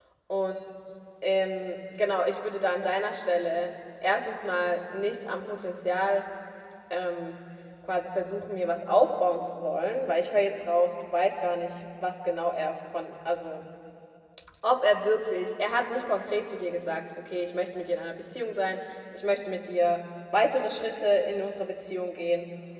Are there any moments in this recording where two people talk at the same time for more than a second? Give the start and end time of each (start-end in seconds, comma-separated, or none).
none